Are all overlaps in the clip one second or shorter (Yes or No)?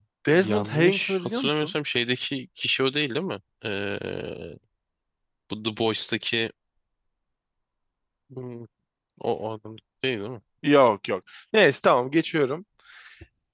No